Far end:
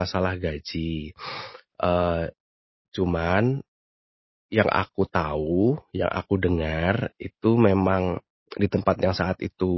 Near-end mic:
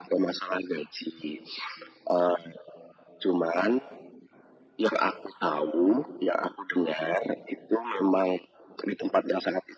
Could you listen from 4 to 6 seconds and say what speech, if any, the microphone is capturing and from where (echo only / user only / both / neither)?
echo only